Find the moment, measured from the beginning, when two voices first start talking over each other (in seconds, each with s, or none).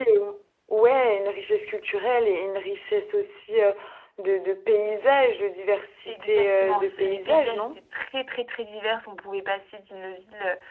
6.1 s